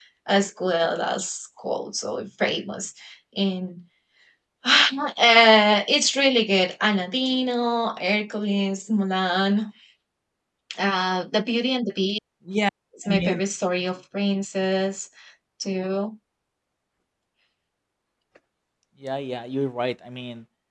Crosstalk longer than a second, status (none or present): none